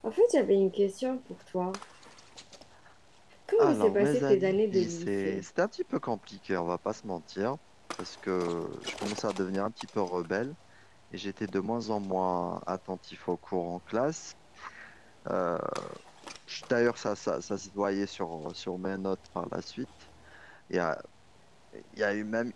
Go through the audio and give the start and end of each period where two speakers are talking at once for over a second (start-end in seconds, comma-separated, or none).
3.6-5.4